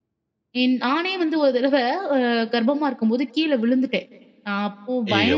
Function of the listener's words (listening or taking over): listening